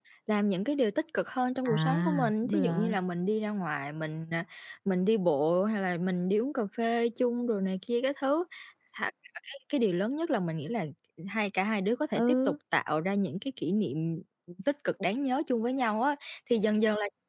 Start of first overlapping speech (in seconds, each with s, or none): 1.6 s